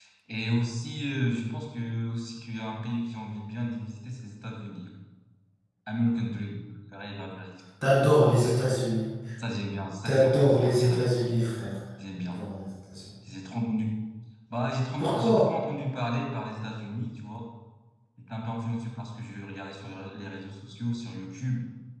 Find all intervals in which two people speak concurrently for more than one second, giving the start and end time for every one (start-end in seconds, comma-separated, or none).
10.1-11.4